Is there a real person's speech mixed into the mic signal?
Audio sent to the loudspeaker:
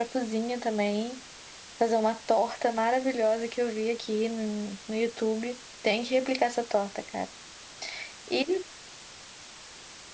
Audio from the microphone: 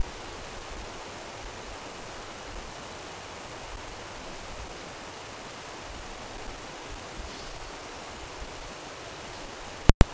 No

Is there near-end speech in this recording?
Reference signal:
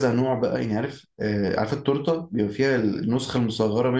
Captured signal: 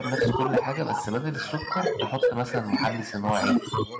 Yes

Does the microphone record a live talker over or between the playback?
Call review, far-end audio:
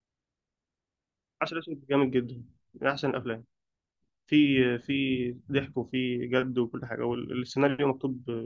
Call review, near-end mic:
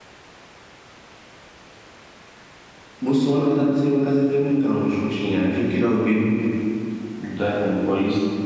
Yes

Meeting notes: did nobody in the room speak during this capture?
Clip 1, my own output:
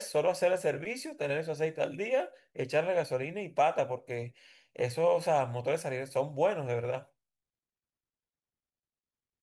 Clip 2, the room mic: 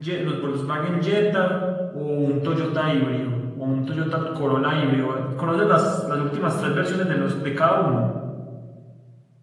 No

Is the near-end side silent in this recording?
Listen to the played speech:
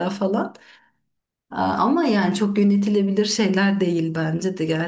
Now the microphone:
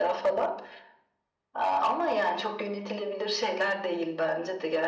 Yes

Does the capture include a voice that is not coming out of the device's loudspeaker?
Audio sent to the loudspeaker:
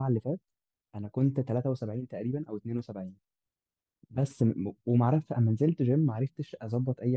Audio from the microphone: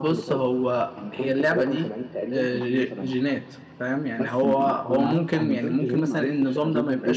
Yes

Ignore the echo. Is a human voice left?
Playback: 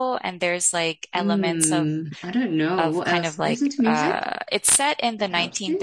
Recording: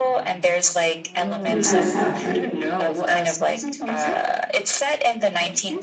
Yes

